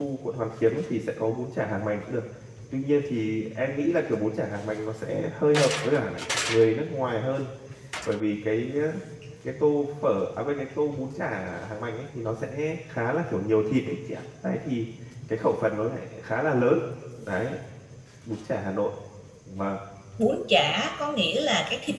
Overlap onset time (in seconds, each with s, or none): none